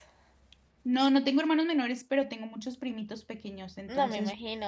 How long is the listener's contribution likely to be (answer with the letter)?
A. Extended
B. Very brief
A